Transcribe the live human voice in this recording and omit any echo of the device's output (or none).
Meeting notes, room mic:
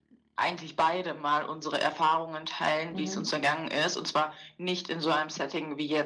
Mhm.